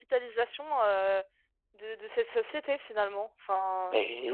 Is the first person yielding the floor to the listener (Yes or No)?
Yes